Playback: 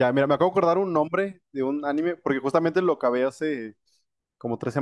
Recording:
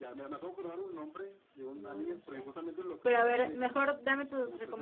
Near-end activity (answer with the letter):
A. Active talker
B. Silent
A